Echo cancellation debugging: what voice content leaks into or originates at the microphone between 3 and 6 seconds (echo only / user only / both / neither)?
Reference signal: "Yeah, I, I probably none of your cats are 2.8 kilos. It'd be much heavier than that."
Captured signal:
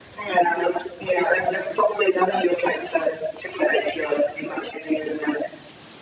echo only